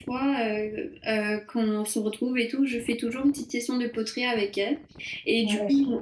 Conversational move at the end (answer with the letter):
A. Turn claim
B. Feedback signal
B